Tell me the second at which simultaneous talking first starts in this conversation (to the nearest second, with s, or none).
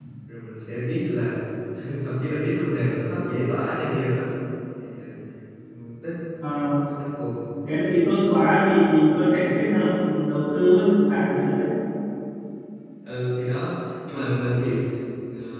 none